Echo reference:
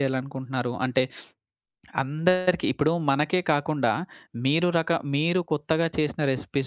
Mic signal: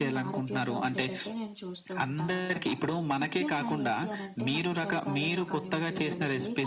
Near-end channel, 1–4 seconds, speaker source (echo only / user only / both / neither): both